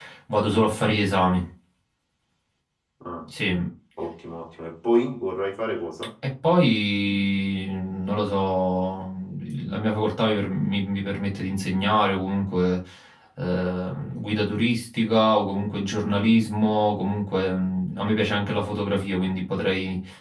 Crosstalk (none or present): none